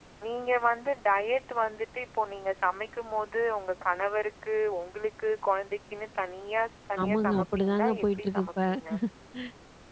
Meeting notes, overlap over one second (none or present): present